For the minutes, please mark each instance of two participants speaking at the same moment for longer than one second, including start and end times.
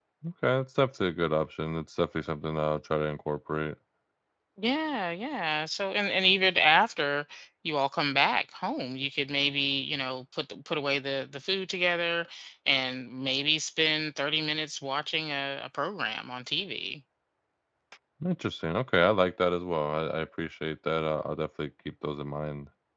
none

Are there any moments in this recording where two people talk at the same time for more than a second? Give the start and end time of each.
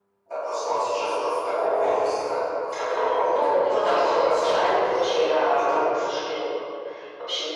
3.3-5.8

